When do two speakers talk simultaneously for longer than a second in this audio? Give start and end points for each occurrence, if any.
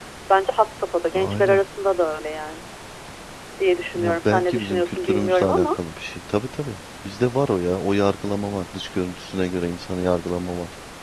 4.0-5.7

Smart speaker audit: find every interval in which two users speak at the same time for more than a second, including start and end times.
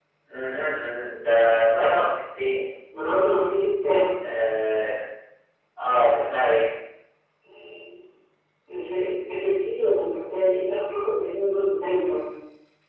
none

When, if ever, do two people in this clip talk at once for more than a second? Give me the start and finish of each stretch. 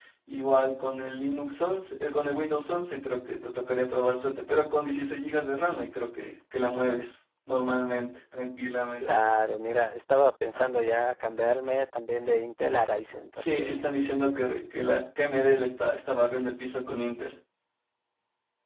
none

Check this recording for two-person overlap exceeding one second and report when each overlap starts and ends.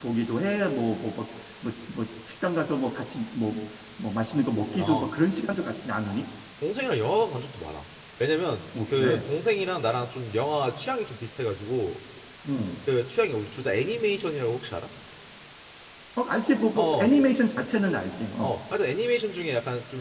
none

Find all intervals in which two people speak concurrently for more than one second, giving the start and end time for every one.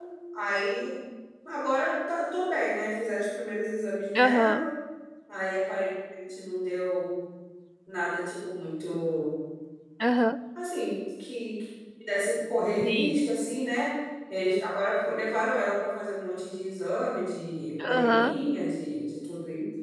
none

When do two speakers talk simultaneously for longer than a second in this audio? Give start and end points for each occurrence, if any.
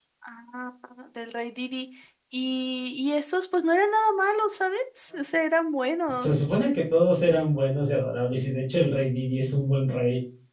none

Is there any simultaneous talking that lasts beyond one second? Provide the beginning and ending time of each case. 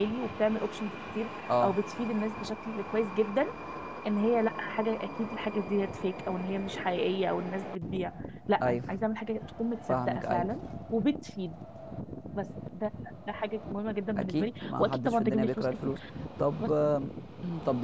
14.2-16.0

